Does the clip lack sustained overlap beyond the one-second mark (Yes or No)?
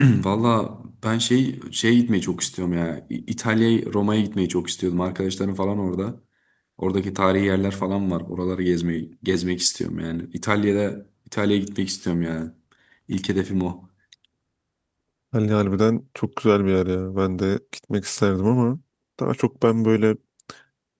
Yes